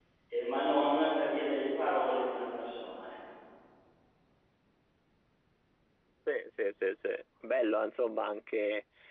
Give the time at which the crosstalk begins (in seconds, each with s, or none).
none